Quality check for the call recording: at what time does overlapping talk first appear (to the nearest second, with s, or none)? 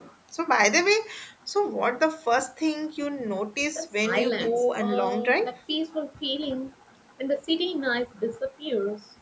4 s